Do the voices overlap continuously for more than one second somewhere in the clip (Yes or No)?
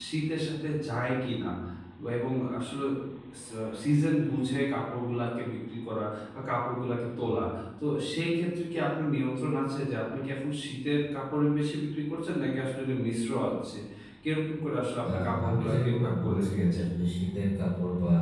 Yes